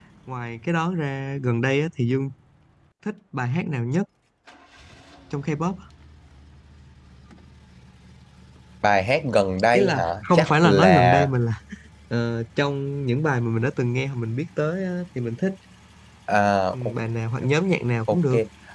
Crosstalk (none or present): present